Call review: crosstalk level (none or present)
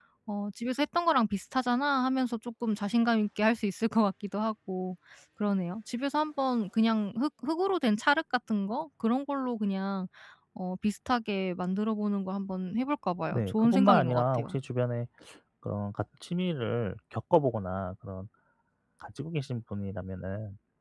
present